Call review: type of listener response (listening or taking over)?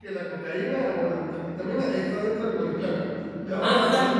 taking over